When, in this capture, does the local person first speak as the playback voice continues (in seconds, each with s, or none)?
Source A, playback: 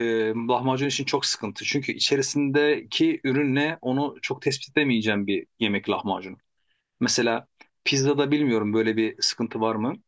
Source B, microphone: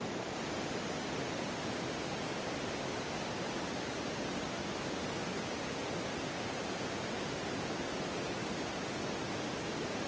none